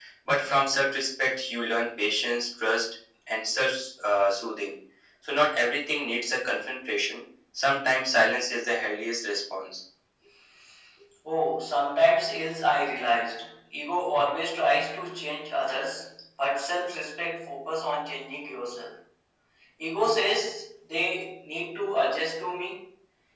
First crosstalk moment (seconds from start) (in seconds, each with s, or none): none